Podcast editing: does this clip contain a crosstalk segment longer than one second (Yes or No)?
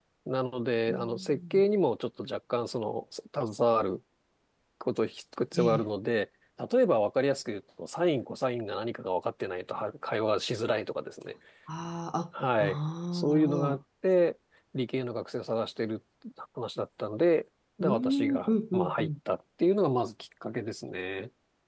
Yes